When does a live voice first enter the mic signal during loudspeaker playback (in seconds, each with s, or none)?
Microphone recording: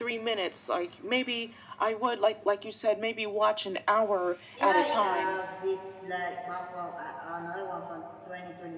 4.6 s